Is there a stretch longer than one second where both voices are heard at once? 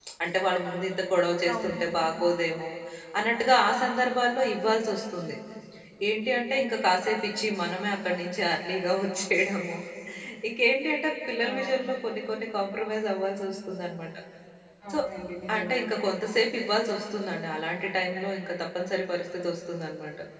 No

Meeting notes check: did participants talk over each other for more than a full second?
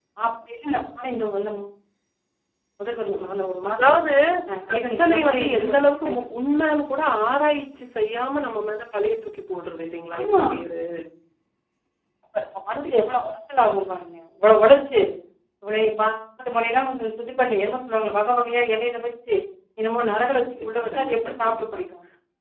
Yes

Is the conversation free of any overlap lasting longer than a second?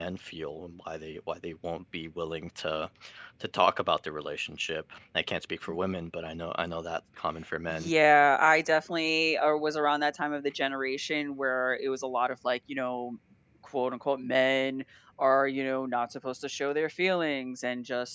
Yes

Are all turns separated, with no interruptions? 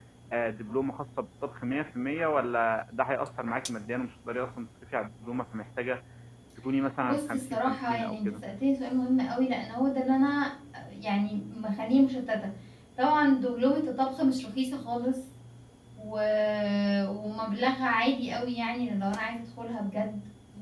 No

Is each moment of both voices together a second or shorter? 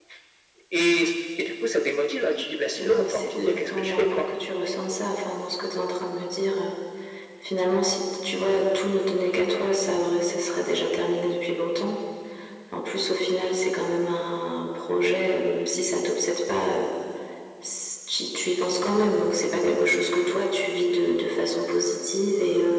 No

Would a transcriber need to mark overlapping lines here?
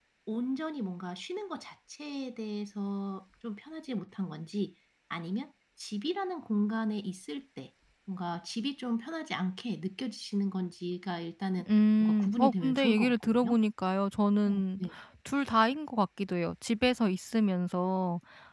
Yes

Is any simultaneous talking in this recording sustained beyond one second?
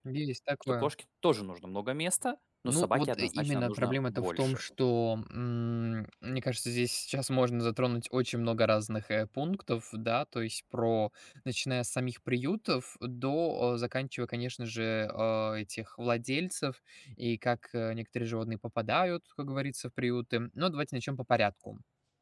Yes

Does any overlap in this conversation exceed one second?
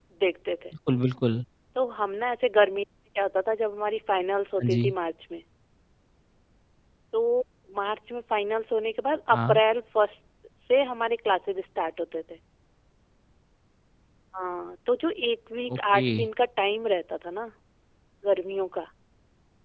No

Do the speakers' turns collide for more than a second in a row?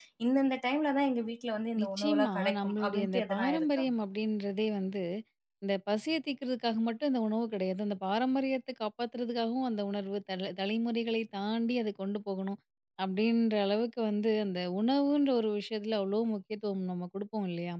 Yes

